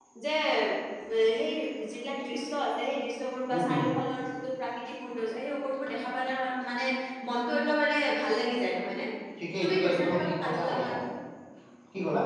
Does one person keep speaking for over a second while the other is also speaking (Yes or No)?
Yes